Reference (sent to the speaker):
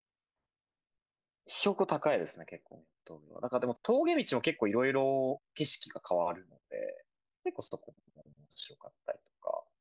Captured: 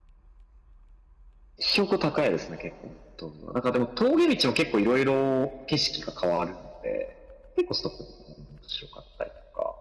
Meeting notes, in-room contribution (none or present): none